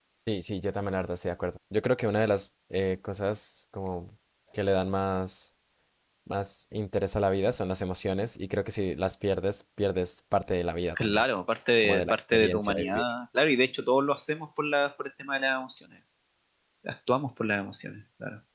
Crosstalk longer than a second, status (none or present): present